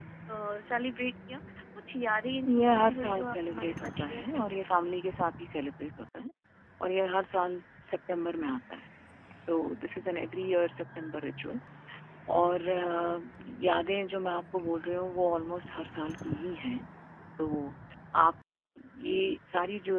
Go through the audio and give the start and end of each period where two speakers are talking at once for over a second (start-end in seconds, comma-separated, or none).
2.5-4.9